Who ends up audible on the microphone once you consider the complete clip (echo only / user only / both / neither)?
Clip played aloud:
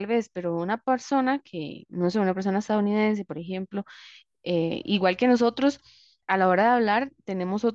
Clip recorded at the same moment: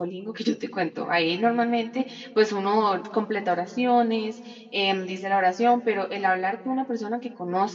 user only